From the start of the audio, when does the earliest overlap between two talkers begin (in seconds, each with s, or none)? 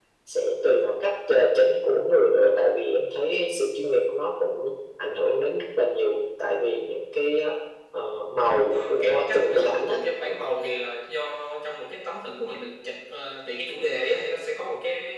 8.7 s